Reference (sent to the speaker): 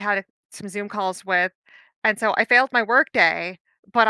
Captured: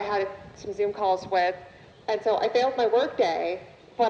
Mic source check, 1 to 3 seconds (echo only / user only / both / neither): echo only